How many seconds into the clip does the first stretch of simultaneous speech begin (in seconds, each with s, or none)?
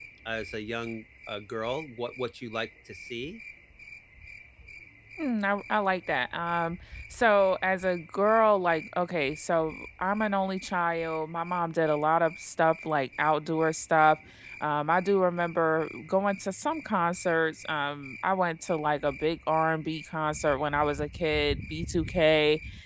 none